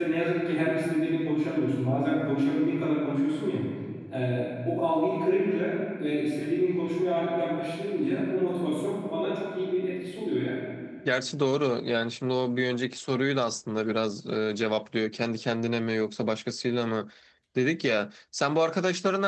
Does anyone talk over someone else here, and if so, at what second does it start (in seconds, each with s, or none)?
none